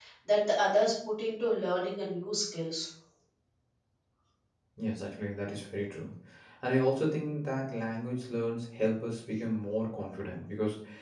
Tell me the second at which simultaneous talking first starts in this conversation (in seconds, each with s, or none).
none